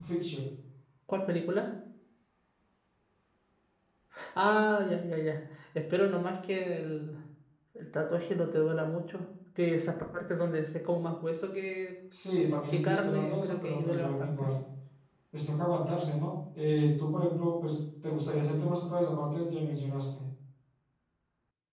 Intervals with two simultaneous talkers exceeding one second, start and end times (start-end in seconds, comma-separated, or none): 12.7-14.5